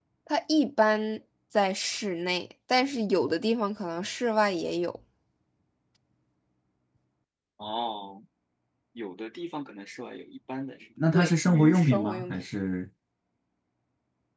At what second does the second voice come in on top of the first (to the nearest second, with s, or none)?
11 s